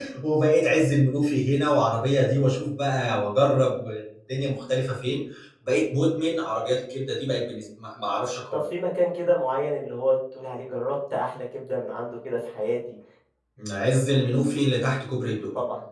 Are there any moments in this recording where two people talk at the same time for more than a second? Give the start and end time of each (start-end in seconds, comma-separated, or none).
none